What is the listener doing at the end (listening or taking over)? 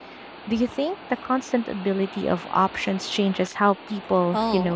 taking over